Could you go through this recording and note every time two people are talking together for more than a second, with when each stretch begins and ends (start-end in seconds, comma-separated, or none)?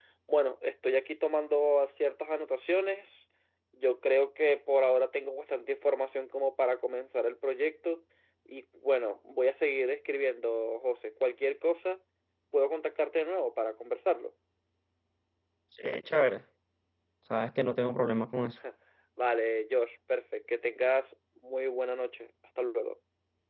none